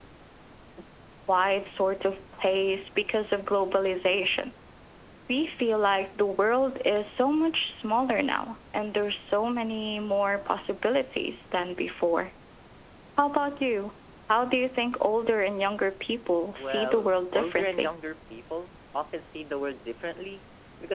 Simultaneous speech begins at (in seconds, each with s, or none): 16.6 s